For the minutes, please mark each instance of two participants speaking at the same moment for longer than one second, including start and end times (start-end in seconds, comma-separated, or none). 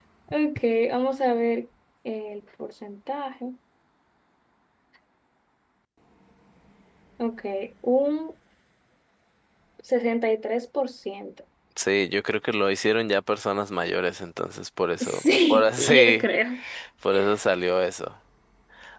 15.0-16.2